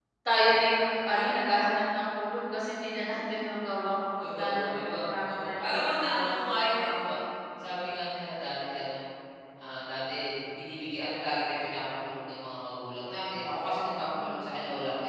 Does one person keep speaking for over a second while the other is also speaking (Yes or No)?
Yes